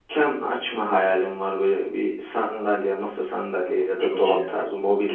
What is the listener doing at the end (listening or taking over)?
listening